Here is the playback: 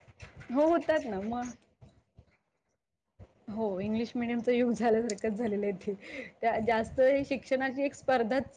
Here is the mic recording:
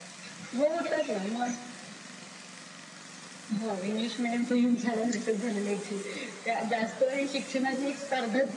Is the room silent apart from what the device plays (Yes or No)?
Yes